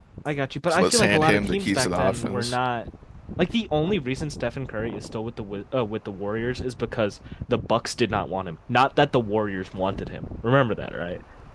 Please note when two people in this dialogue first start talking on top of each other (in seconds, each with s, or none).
0.7 s